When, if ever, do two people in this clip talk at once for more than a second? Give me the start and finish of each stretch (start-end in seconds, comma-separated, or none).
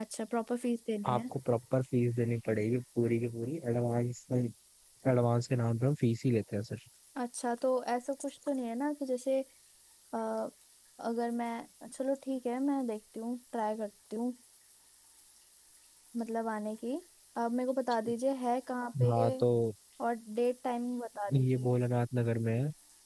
none